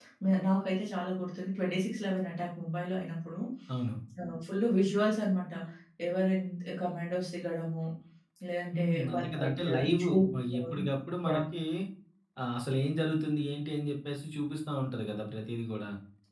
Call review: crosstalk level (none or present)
present